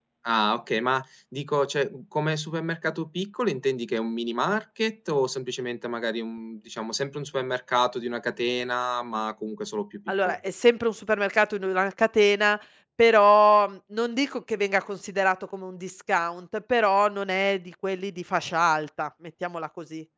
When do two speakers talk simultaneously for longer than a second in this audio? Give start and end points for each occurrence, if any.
none

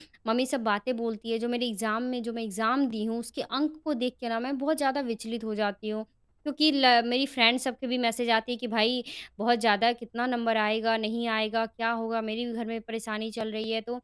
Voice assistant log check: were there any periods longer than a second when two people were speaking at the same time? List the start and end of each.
none

